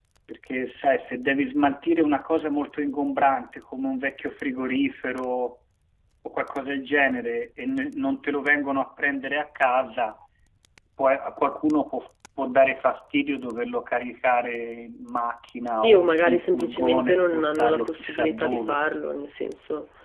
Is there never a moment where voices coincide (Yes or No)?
No